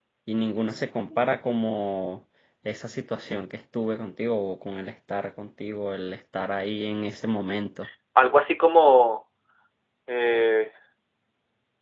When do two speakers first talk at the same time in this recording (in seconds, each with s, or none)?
none